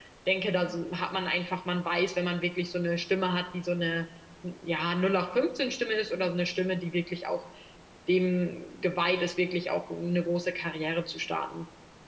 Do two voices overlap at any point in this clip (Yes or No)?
No